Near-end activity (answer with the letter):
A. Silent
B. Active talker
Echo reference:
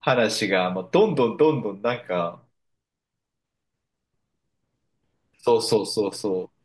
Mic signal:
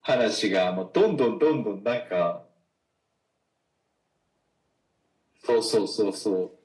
A